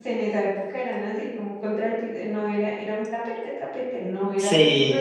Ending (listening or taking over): listening